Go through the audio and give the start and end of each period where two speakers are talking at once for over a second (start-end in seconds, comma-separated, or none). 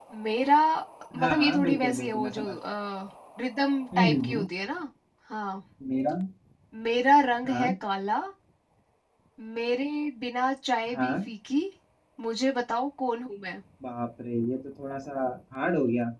1.2-2.4